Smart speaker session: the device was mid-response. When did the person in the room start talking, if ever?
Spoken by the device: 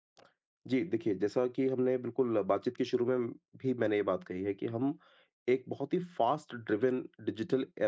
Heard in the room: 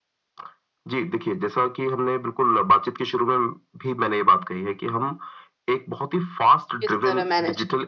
7 s

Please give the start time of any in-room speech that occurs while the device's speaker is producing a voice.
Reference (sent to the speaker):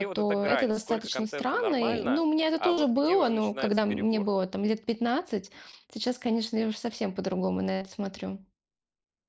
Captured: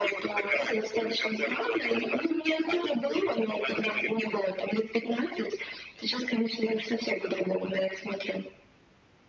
none

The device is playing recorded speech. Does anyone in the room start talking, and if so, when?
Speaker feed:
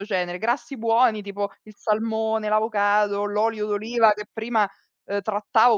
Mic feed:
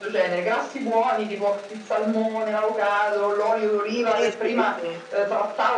4 s

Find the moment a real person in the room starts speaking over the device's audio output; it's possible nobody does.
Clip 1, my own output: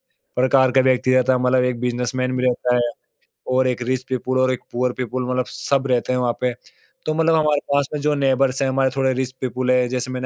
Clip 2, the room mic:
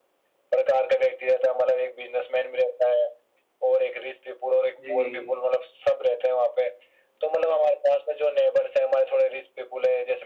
5 s

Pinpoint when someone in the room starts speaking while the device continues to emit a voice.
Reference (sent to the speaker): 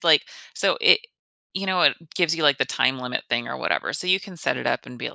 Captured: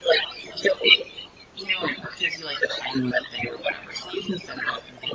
none

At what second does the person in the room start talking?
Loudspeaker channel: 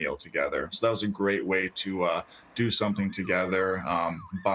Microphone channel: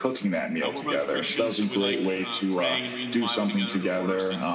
1 s

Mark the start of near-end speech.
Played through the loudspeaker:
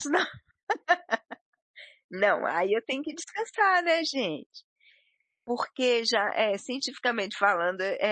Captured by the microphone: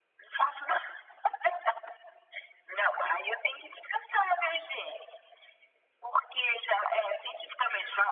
none

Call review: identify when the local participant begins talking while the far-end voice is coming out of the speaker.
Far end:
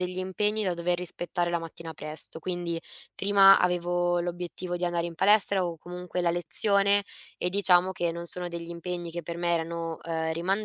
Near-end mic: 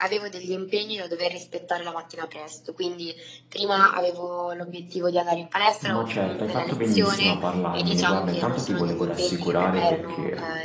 6 s

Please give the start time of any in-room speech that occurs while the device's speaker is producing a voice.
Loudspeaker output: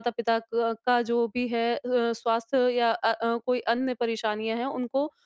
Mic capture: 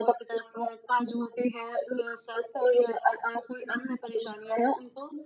none

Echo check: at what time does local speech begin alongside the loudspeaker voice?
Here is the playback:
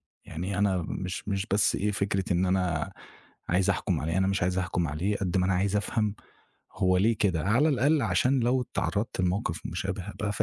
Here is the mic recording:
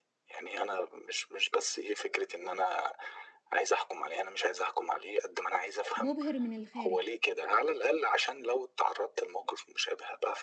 6 s

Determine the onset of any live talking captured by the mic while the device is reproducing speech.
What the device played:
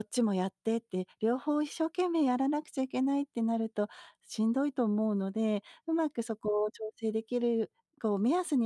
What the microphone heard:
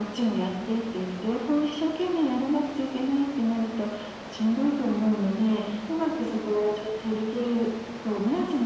none

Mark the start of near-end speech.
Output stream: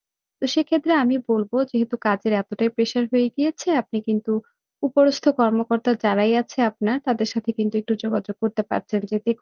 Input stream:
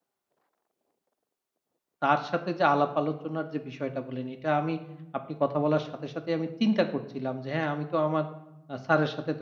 2 s

